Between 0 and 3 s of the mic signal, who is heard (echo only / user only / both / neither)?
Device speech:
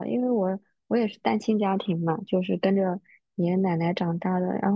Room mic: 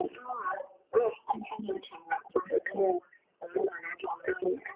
echo only